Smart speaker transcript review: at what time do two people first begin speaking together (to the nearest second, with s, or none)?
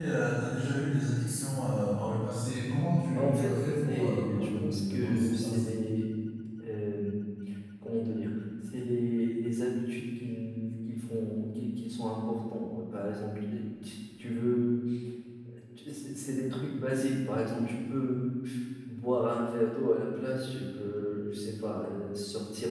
3 s